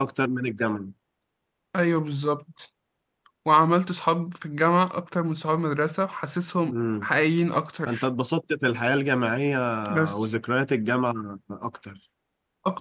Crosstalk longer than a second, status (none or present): none